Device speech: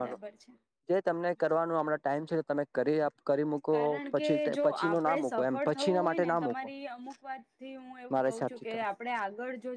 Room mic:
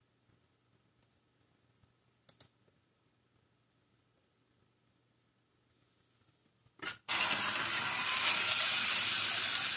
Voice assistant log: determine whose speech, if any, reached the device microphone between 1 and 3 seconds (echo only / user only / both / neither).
neither